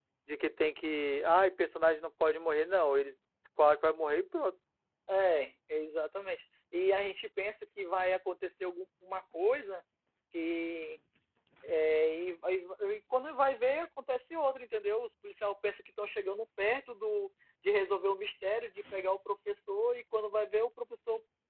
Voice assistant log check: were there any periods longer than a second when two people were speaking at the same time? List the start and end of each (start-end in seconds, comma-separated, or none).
none